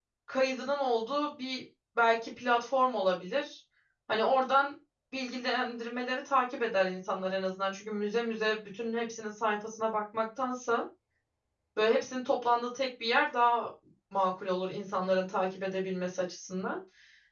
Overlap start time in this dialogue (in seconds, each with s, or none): none